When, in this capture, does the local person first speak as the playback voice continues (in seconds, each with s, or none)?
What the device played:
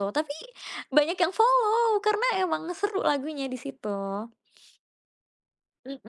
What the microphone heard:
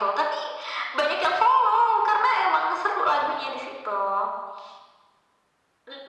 none